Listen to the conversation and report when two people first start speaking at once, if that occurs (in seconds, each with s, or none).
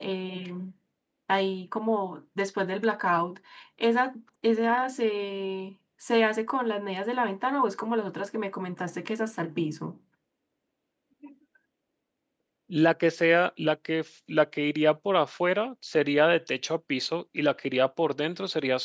none